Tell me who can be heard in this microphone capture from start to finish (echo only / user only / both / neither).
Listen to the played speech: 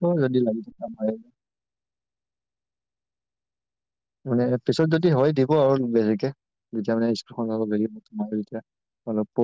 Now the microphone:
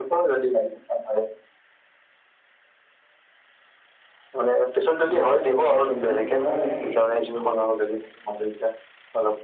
both